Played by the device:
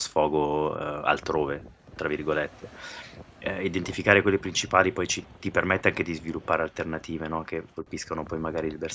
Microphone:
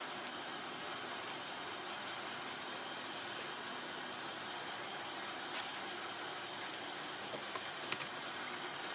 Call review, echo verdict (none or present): none